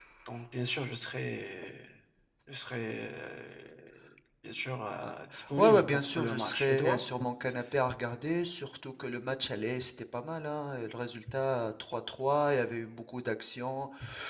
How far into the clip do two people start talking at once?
6 s

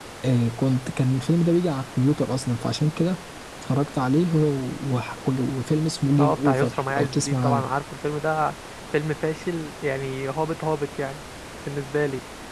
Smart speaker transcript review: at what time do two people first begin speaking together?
6 s

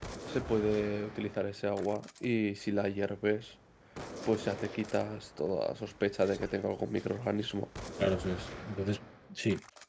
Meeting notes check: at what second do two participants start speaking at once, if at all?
none

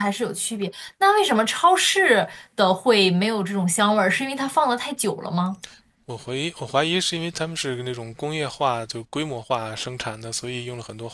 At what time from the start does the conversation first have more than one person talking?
none

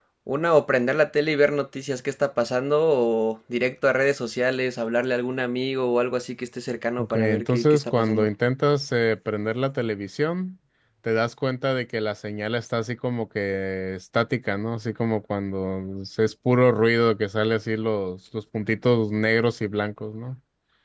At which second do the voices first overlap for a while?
7 s

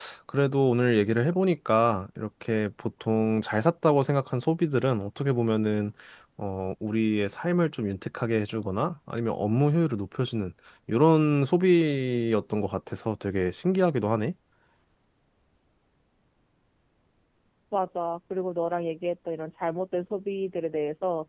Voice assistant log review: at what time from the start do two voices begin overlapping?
none

